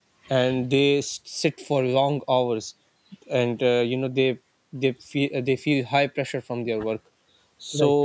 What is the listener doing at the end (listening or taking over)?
listening